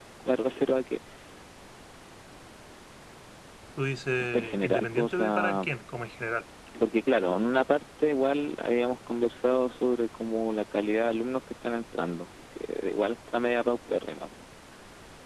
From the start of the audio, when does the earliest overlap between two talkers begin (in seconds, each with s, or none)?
4.3 s